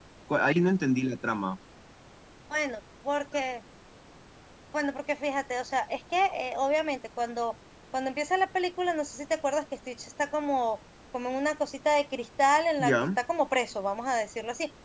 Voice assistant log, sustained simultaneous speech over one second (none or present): none